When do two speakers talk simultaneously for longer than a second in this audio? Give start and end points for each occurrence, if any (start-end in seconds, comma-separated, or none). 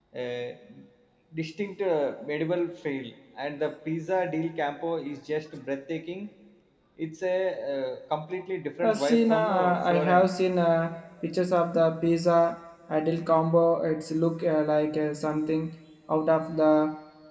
8.8-10.2